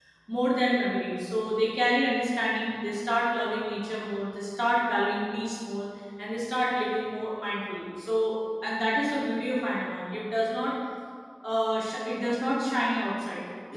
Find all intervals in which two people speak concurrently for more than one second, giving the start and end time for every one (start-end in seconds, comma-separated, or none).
none